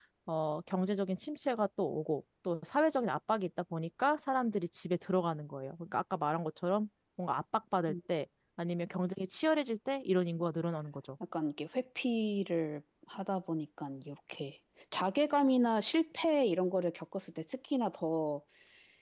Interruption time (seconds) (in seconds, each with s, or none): none